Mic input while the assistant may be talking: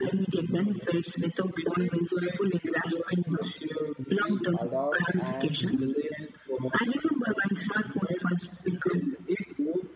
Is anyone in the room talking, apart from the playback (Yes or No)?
Yes